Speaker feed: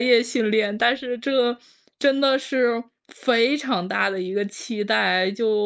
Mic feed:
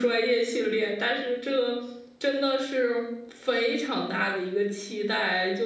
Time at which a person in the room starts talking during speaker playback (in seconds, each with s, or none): none